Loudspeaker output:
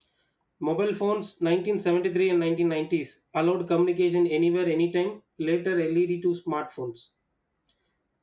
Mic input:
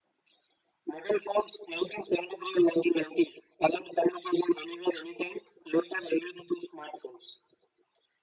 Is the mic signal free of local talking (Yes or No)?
Yes